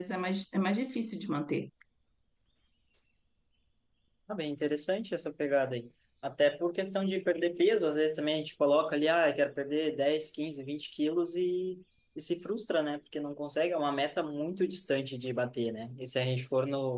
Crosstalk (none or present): none